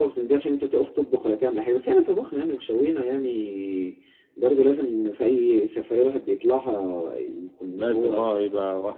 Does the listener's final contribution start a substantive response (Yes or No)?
Yes